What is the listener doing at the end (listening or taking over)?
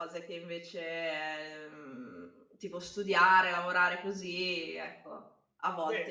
taking over